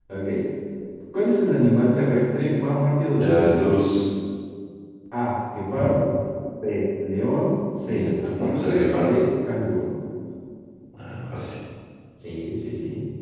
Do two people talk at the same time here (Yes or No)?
Yes